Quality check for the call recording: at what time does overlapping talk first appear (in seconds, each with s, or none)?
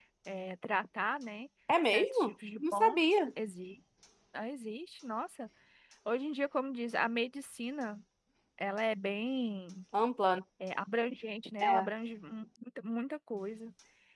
1.9 s